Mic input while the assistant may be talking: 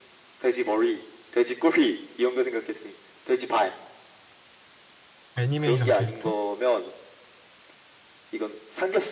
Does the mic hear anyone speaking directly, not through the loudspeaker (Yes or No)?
Yes